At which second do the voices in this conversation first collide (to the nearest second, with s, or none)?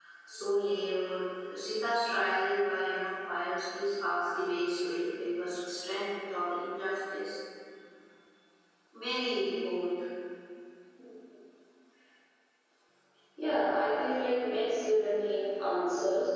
none